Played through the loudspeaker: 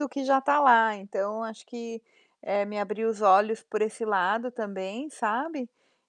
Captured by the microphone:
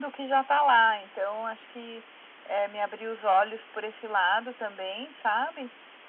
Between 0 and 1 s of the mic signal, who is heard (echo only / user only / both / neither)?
echo only